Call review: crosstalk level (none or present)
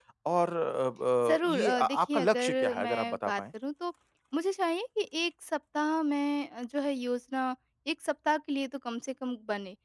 present